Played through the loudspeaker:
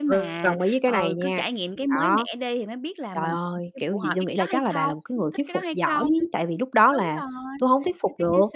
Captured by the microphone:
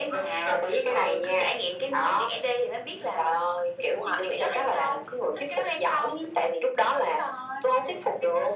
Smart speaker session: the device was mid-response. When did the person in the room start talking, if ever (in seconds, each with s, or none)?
none